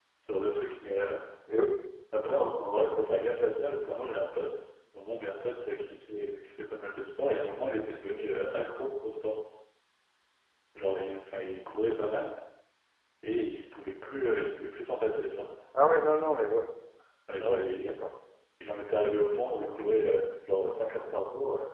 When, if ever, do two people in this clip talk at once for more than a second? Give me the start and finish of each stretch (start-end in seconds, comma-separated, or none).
none